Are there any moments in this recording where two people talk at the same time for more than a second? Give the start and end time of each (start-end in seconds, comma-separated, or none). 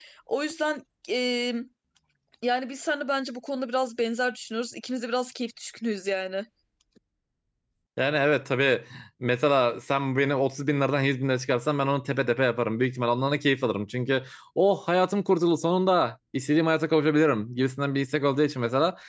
none